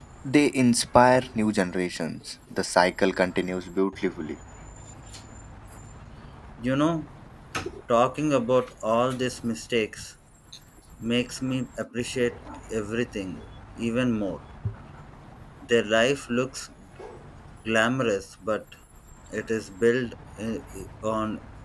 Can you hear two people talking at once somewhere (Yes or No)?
No